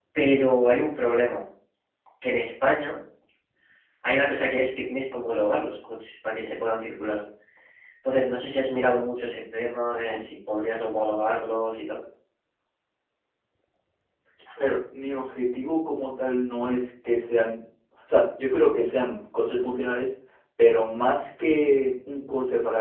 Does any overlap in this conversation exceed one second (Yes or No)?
No